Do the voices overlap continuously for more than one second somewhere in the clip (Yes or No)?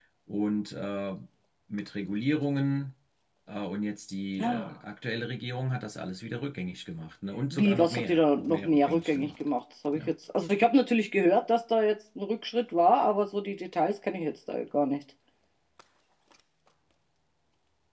Yes